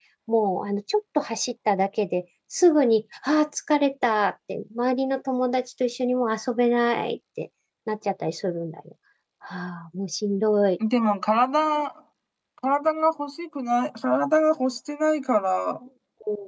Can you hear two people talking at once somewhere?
No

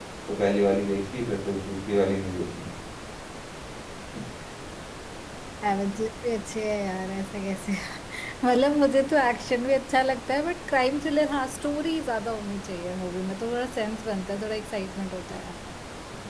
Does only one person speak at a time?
Yes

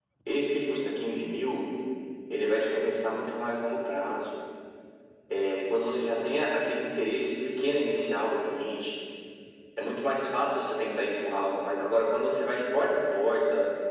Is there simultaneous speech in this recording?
No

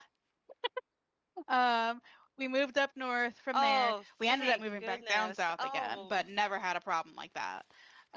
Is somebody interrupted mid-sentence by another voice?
Yes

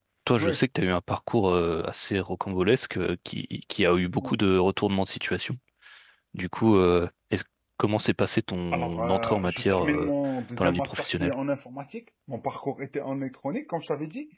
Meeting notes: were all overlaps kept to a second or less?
No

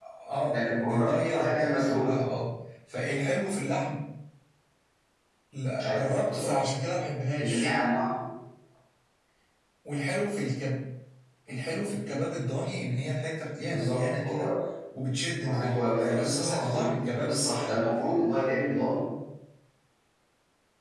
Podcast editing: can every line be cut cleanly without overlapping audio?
No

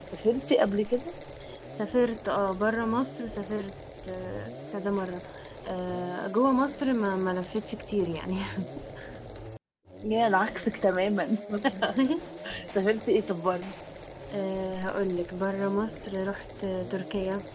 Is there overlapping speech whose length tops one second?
No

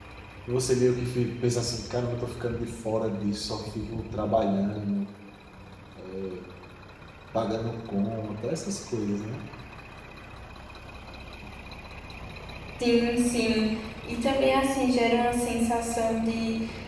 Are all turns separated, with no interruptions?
Yes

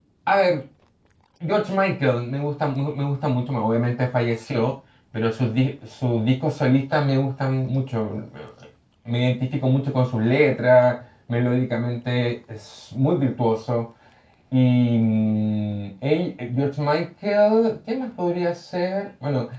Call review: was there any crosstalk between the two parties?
No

